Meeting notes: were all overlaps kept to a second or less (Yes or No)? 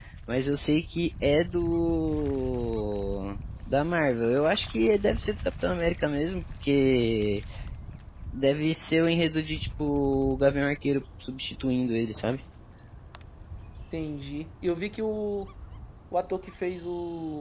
Yes